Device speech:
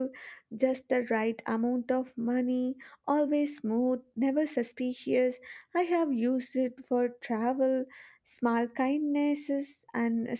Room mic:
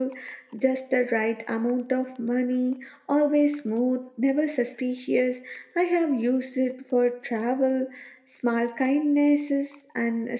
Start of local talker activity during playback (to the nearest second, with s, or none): none